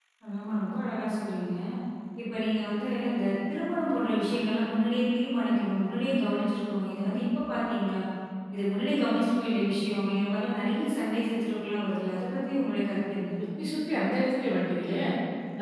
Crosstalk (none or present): none